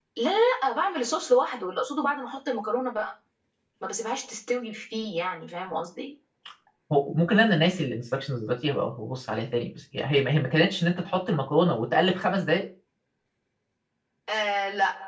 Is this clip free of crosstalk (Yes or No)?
Yes